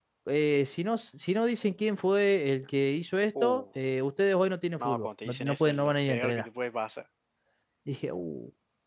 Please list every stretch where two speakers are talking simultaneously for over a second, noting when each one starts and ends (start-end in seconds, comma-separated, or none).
4.8-6.5